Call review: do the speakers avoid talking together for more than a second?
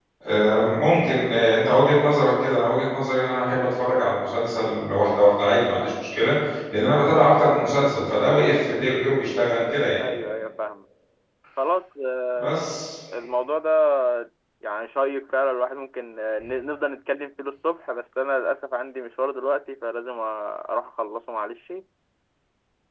Yes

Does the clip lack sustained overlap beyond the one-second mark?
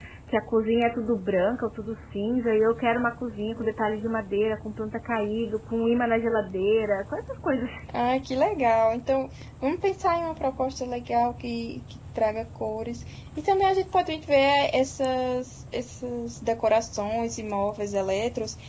Yes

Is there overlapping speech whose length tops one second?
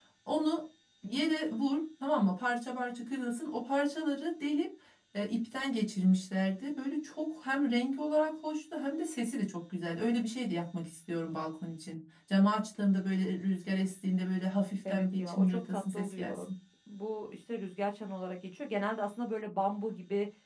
Yes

